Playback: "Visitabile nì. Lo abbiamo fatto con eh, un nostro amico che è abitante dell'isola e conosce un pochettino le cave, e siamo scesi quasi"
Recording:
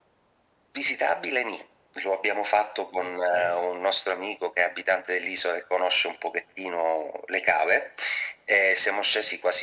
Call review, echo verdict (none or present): present